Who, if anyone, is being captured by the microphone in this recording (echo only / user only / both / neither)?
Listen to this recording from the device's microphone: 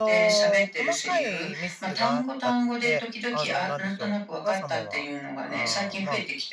both